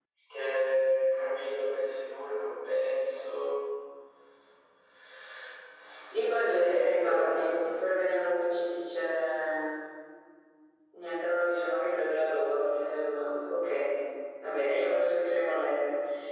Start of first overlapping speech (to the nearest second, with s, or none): 6 s